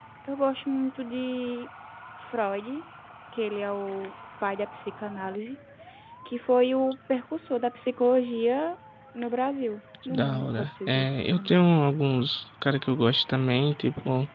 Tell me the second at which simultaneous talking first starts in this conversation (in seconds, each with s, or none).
10.0 s